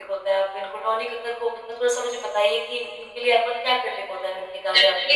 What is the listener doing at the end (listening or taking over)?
taking over